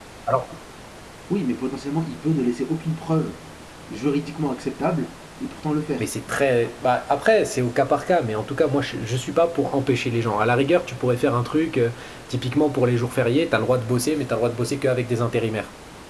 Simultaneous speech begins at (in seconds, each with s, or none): none